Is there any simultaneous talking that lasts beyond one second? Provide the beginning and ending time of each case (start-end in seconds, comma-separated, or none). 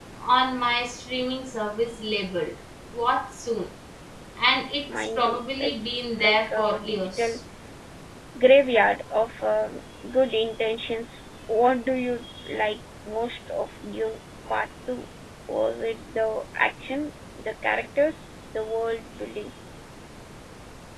5.0-7.4